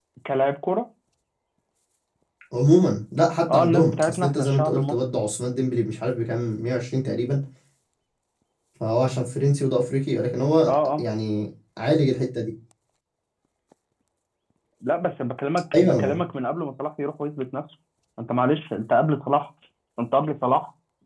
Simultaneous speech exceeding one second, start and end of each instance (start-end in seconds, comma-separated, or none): 3.5-5.0